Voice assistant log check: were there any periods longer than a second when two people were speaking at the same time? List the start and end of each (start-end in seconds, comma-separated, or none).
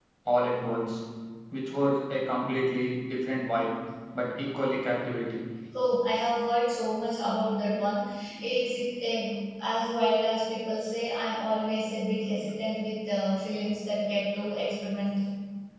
none